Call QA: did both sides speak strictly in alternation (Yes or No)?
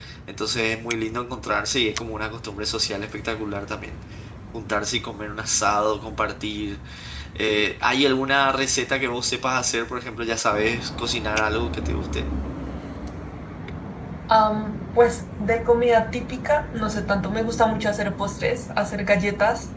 Yes